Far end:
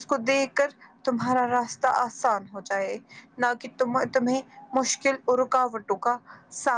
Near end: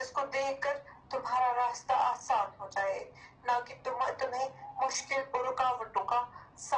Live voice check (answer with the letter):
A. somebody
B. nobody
B